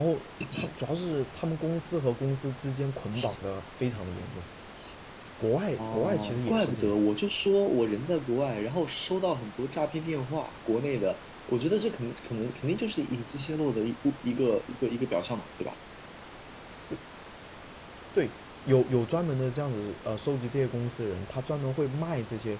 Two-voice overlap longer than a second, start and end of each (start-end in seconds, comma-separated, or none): 5.8-7.0